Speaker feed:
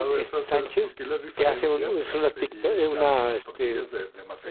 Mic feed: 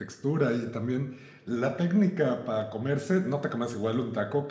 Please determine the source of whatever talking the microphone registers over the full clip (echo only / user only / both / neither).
user only